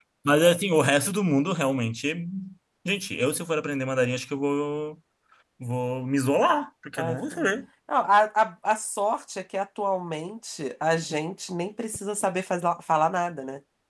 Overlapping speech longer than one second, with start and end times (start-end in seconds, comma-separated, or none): none